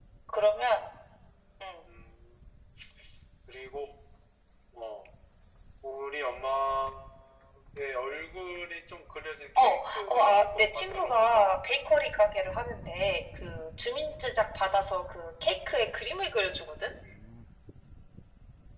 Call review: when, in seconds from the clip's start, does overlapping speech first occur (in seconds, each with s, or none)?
9.6 s